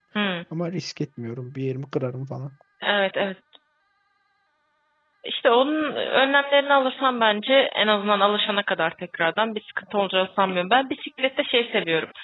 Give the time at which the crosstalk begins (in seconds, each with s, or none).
none